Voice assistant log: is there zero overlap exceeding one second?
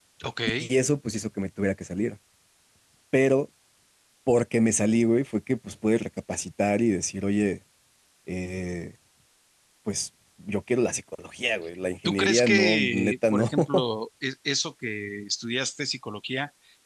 No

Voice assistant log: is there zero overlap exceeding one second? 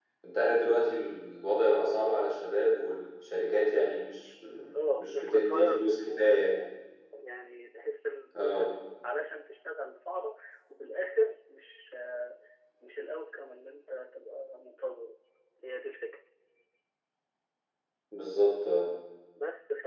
No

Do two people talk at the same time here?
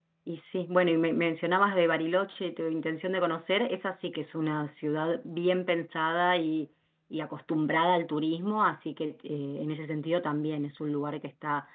No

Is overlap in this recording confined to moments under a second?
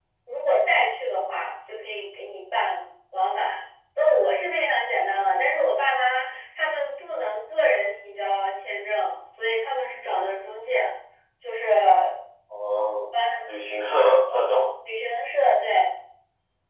Yes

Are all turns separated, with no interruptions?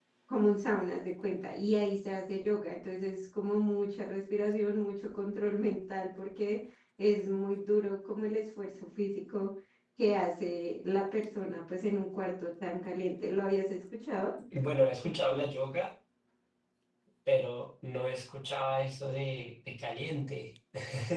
Yes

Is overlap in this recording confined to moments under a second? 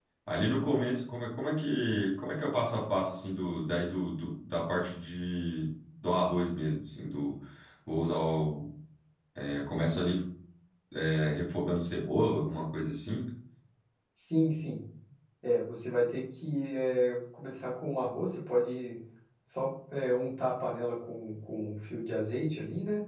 Yes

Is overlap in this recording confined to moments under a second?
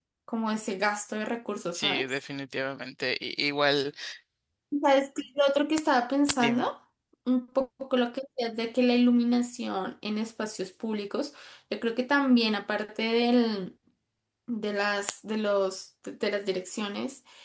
Yes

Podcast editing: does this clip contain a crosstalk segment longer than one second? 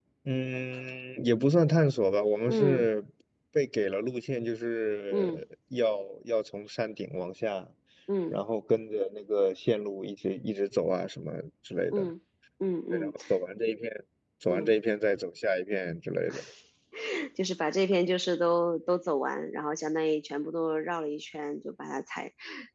No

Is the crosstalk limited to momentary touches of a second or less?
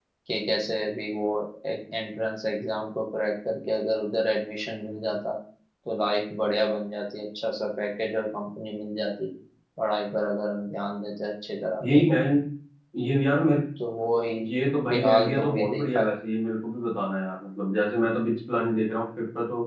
No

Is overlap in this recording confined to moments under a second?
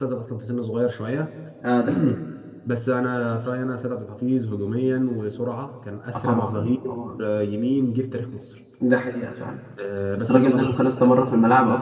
No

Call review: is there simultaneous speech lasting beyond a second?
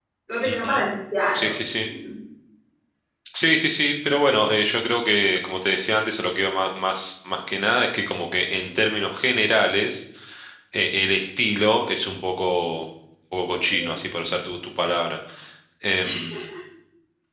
No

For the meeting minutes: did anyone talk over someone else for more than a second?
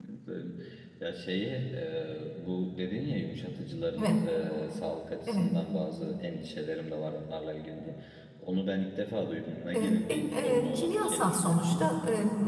Yes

